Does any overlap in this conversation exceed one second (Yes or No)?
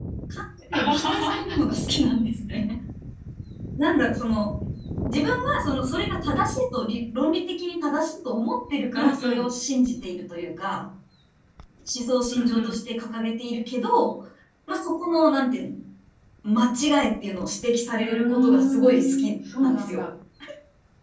Yes